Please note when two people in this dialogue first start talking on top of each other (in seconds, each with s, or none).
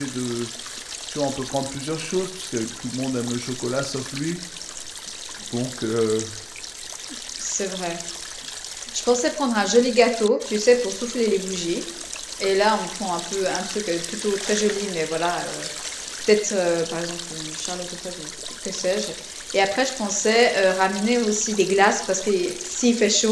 none